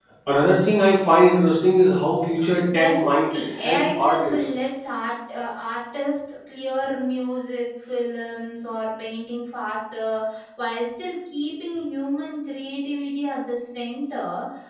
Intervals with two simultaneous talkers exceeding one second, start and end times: 2.8-4.5

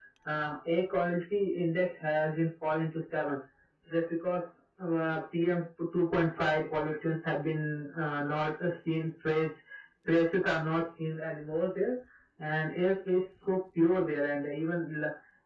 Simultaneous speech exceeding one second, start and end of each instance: none

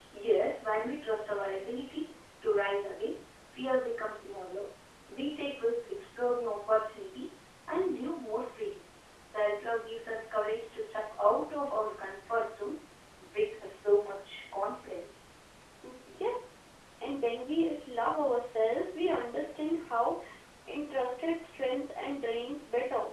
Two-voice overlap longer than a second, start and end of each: none

